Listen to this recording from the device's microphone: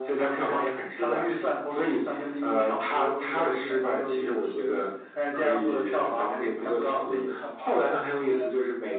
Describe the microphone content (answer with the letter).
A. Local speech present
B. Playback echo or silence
A